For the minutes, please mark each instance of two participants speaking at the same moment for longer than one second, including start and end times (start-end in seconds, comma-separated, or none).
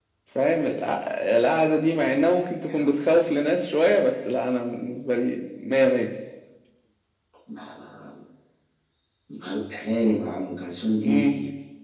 none